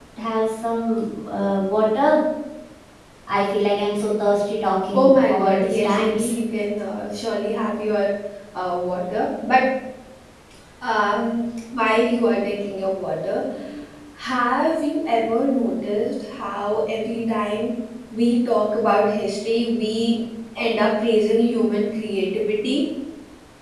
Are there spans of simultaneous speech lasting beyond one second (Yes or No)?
Yes